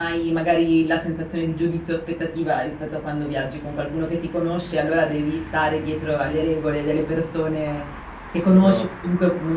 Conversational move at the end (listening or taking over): listening